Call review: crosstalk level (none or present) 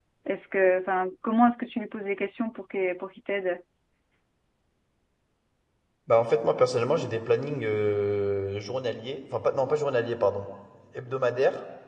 none